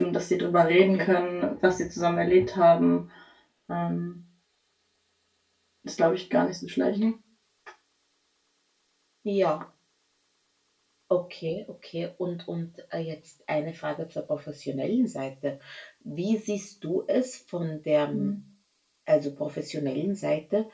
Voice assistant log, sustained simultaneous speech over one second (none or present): none